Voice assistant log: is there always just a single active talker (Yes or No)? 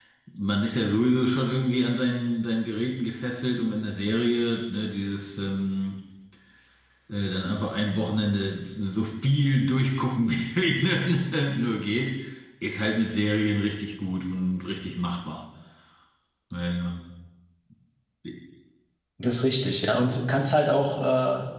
Yes